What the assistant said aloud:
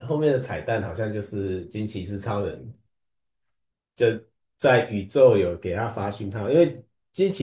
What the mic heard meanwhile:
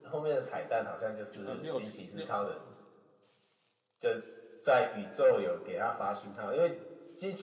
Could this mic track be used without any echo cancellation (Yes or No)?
No